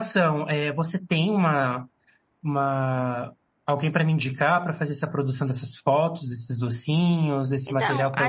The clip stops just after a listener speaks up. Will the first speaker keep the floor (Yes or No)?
No